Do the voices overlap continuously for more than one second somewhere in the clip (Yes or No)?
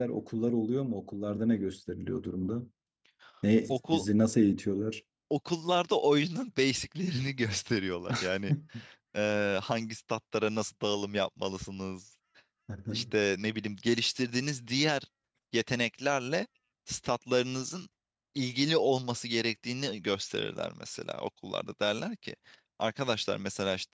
No